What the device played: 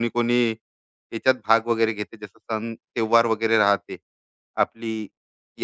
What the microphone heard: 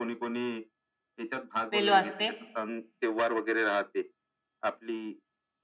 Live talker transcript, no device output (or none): बेल वाजते,